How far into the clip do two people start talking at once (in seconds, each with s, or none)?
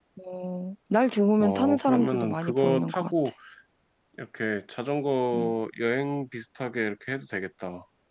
1.4 s